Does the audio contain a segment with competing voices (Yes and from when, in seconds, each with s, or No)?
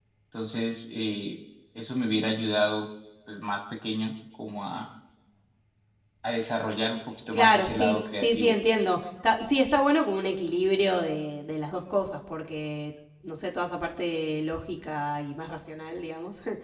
Yes, from 7.3 s